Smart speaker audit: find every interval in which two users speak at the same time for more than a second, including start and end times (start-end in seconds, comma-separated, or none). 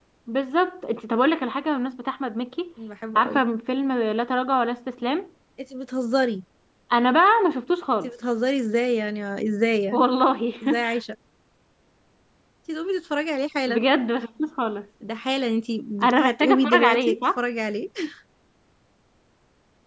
16.0-17.4